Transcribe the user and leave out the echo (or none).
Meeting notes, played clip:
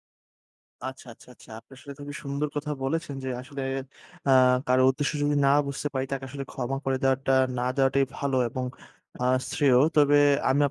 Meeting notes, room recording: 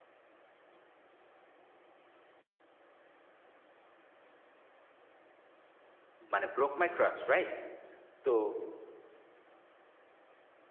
মানে broke my trust right তো,